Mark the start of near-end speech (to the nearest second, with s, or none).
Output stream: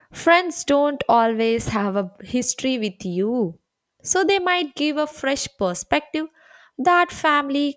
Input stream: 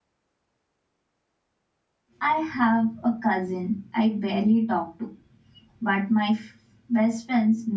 2 s